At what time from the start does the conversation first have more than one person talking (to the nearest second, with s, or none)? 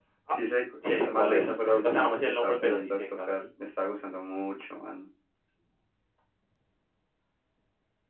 1 s